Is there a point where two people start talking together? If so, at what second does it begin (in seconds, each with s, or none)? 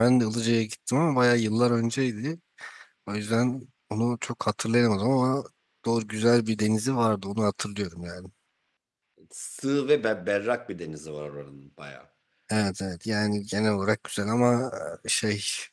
none